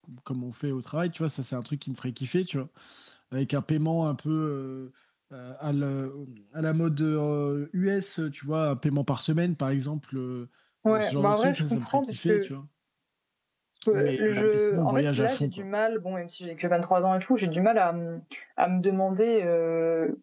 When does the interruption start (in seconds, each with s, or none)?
10.9 s